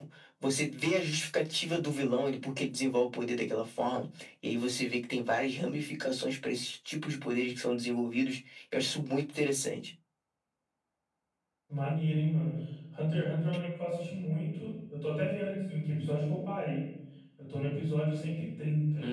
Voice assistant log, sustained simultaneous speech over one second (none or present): none